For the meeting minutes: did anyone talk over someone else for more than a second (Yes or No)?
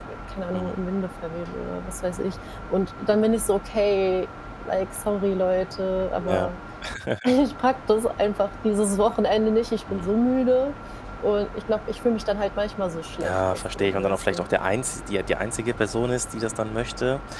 Yes